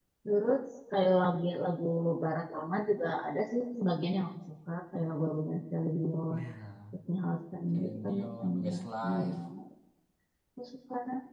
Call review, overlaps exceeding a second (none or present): present